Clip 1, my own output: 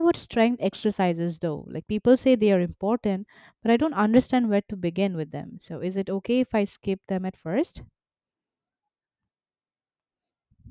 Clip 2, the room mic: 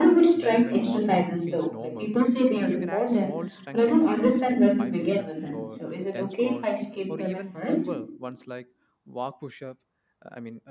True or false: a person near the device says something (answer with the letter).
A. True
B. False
A